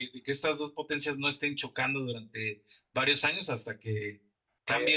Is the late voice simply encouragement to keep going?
Yes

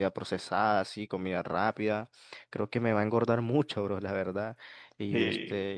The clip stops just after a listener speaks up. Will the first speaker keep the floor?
Yes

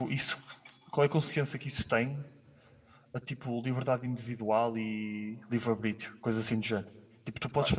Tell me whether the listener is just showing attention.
Yes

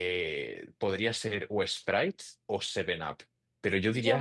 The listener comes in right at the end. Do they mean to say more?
Yes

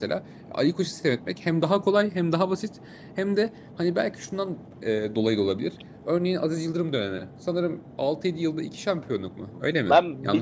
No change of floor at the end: No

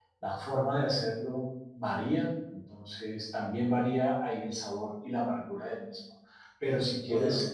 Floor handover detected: No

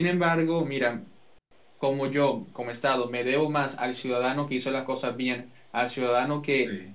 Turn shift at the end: No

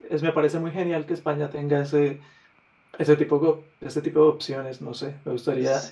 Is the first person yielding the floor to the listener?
No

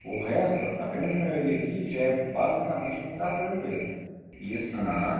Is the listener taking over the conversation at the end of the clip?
Yes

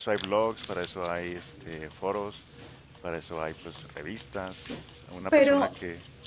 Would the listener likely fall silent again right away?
Yes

